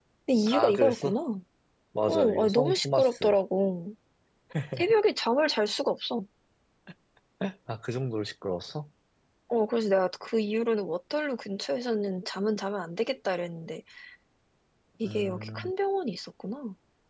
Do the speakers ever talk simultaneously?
Yes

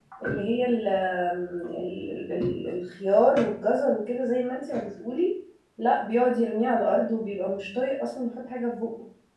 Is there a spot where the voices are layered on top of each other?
No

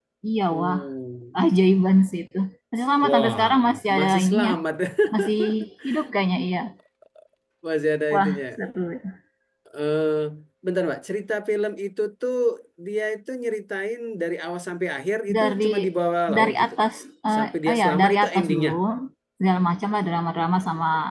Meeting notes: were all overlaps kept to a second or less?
No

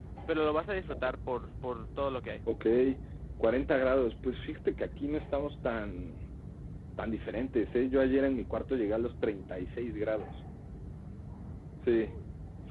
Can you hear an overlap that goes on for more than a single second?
No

